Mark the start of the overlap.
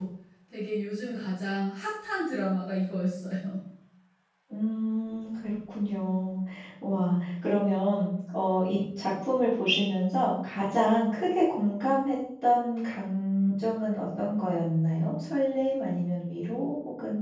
none

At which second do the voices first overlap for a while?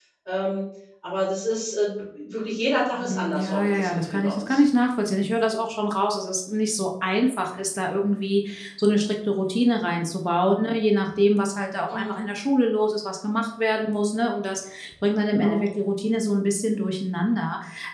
3 s

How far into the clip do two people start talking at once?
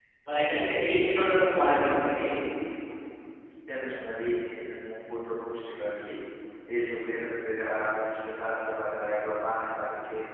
none

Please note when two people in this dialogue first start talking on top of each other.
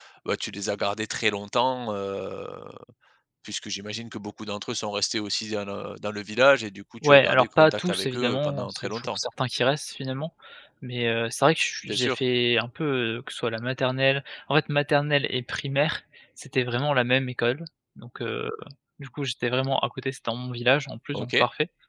7 s

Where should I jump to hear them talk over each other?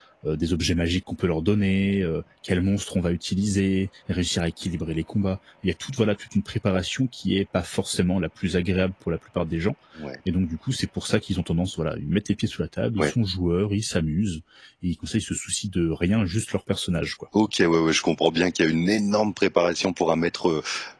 none

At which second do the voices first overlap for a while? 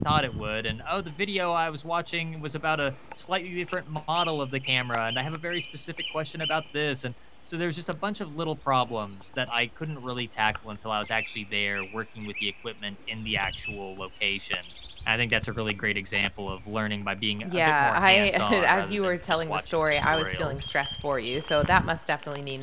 17 s

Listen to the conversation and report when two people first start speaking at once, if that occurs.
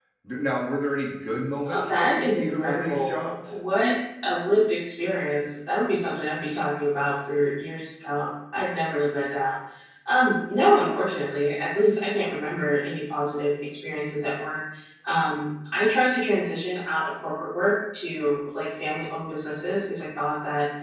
2 s

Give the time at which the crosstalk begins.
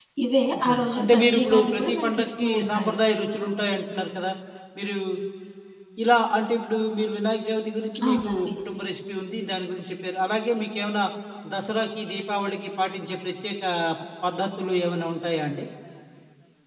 1 s

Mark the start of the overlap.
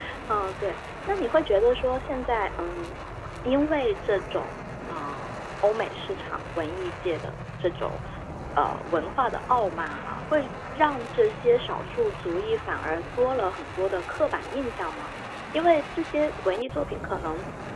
none

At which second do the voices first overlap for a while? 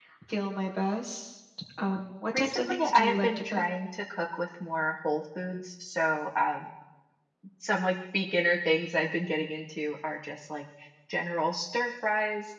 2 s

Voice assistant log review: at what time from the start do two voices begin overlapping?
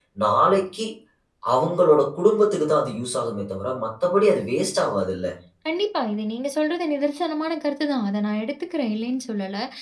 none

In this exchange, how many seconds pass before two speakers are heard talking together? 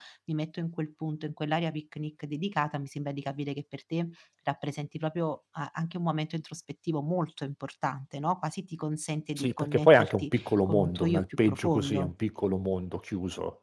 9 s

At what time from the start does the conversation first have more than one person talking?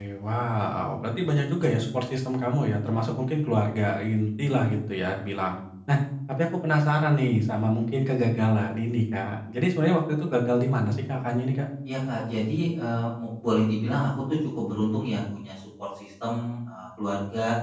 none

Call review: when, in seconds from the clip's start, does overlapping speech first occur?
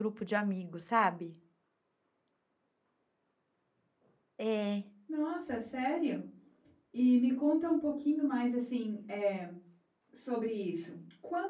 none

